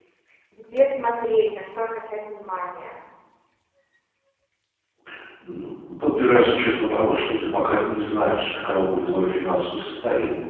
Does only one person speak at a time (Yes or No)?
Yes